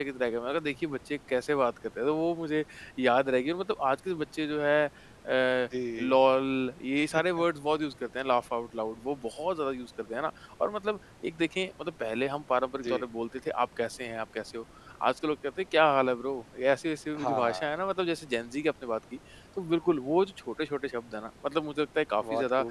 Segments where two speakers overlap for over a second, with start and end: none

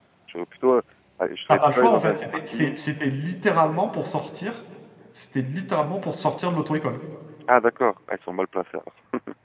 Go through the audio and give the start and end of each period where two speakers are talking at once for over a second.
1.5-2.8

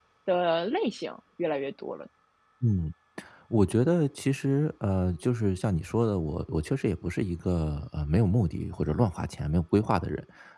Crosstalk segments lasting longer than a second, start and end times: none

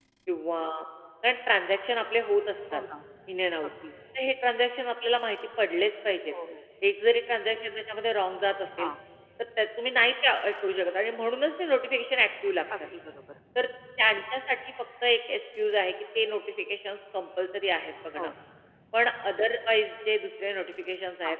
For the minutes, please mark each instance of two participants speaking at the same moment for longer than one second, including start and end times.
none

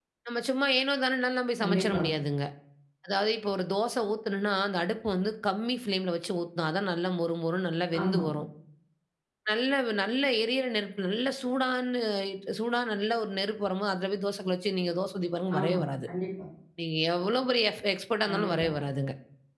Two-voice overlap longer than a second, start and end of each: none

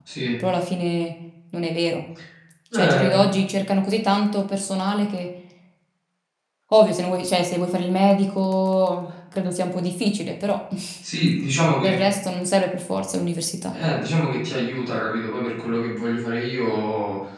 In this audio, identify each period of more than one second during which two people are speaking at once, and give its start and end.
none

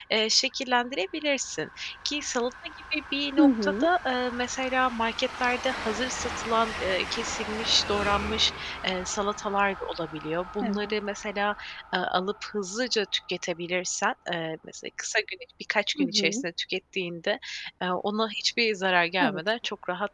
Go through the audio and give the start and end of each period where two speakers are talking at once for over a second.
none

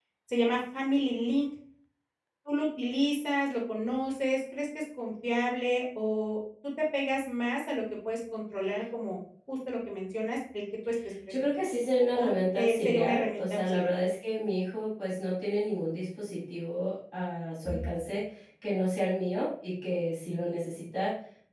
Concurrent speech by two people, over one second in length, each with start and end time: 12.1-13.9

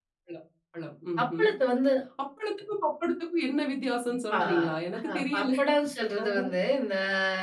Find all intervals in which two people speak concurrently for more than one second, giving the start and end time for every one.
none

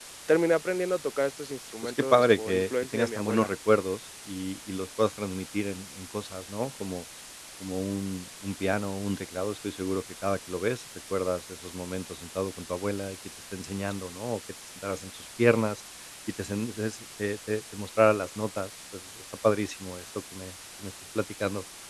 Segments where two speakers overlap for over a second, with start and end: 1.8-3.5

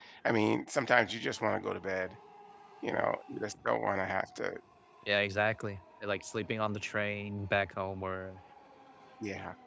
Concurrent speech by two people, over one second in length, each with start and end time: none

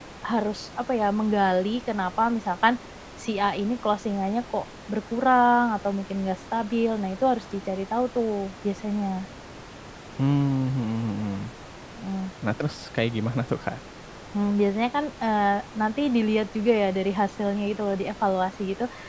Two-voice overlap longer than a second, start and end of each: none

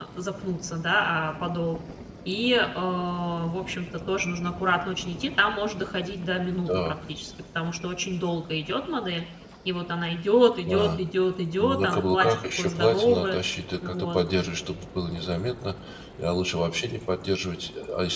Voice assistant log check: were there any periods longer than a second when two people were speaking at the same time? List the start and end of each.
11.6-13.4

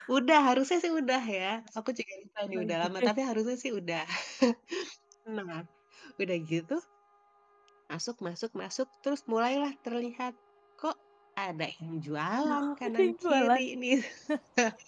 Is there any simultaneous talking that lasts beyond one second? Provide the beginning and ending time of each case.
12.4-13.6

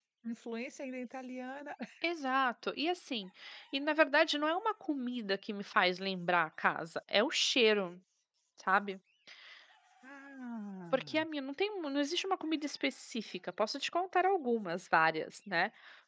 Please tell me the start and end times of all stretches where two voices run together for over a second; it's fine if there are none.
none

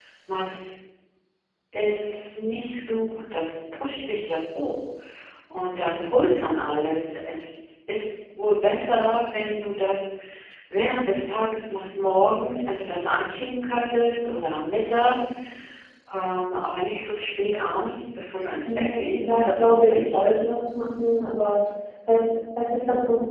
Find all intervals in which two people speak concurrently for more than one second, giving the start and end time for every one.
18.7-20.2

